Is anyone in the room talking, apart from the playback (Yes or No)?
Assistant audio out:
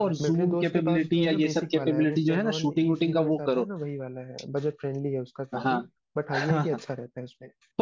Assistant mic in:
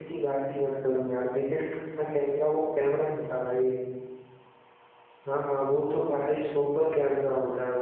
Yes